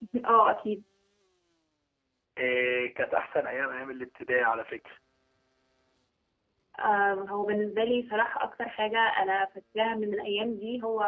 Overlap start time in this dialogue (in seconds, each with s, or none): none